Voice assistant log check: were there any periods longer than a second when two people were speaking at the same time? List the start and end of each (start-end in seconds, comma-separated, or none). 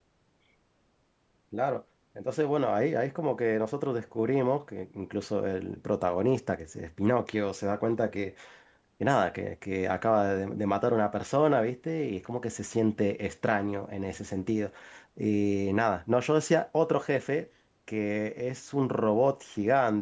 none